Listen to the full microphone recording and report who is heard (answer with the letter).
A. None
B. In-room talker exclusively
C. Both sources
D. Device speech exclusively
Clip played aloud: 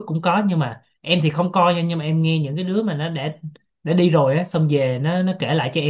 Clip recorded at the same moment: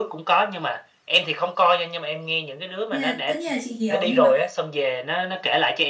C